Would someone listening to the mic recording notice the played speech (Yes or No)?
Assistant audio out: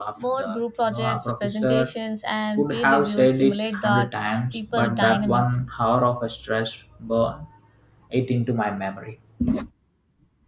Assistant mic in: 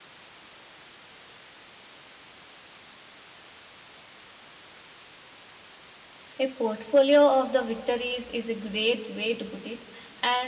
No